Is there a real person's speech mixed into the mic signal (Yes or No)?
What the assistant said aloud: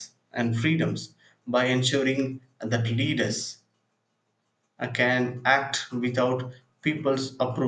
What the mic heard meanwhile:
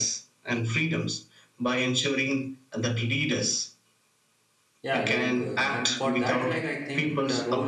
Yes